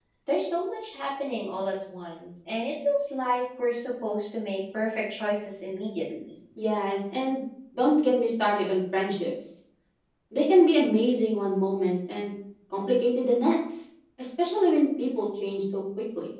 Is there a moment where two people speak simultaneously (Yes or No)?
No